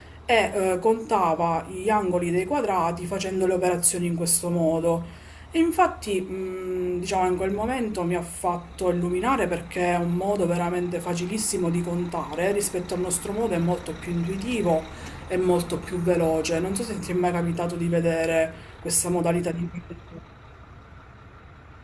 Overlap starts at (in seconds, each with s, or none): none